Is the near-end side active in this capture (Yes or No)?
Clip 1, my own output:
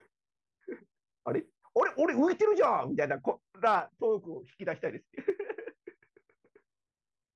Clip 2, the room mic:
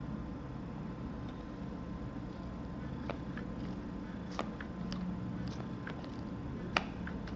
No